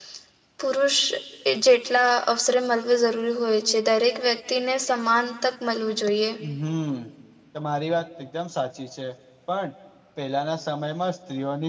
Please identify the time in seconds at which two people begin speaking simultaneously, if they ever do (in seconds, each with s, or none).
none